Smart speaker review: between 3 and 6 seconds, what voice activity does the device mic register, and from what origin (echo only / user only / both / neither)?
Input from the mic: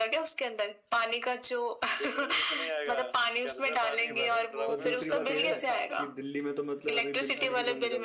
both